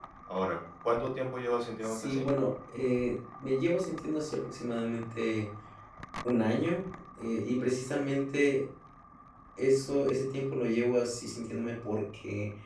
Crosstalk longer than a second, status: none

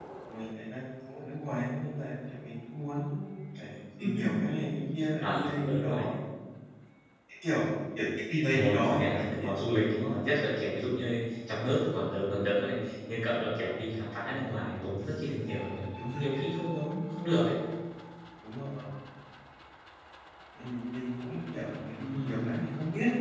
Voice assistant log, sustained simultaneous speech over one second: present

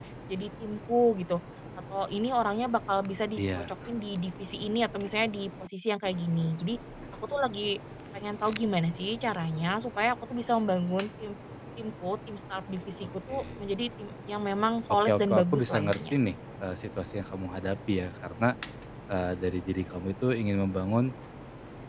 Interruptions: present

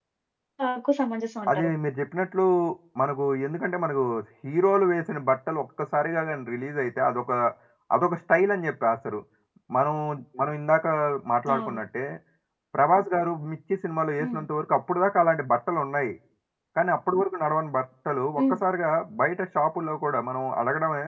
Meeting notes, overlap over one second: none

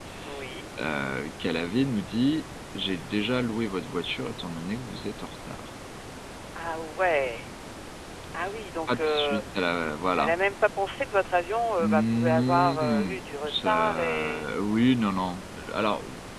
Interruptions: present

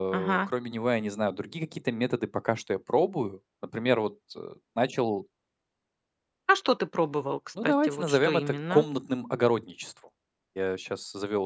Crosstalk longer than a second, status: present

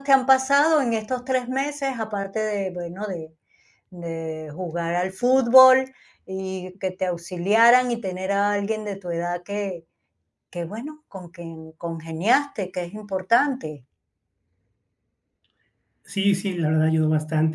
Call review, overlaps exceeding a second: none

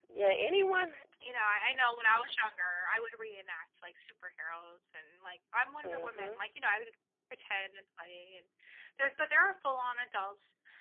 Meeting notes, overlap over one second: none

